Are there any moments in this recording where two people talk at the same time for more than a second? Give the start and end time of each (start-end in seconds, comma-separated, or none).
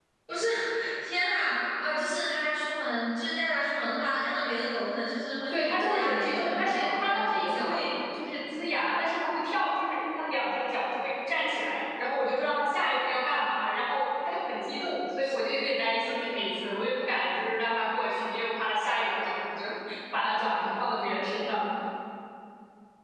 5.5-7.8